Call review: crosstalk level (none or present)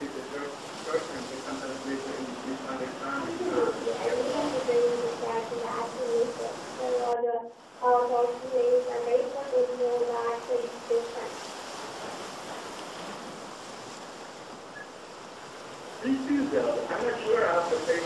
present